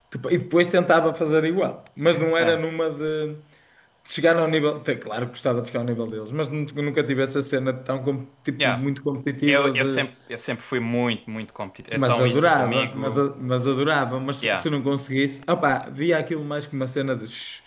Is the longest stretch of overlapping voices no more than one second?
No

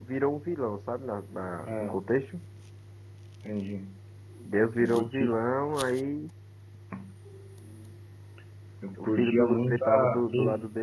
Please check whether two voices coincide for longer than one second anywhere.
Yes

